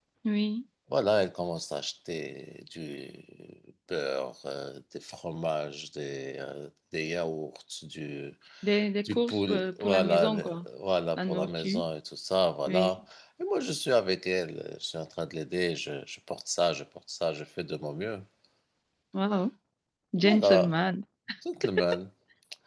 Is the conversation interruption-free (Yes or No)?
No